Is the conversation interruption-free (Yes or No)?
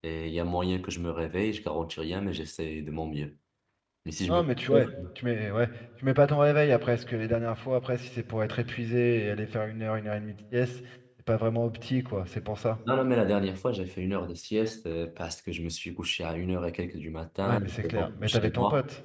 No